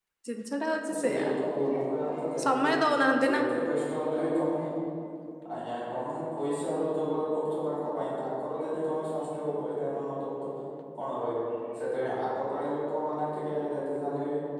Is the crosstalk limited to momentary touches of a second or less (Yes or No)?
Yes